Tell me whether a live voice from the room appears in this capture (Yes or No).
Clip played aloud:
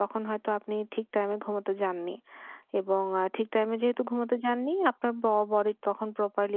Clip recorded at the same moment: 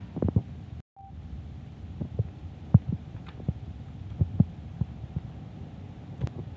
No